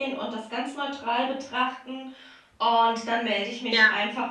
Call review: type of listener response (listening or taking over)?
listening